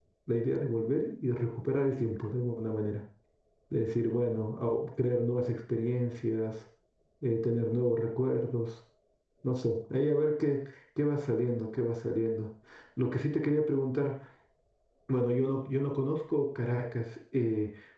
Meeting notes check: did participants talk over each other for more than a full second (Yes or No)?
No